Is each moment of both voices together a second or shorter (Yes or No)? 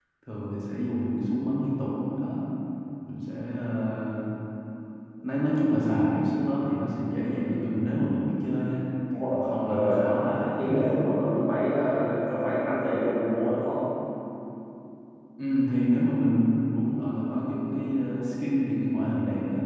No